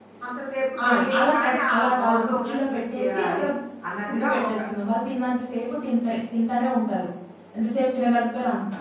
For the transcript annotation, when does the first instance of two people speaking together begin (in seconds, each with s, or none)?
0.9 s